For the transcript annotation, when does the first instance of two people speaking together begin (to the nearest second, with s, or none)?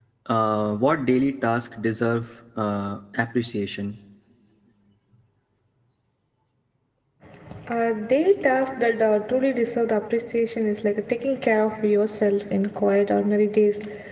none